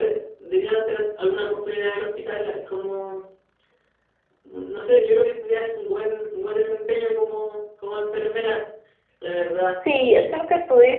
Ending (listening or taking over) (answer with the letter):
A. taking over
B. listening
A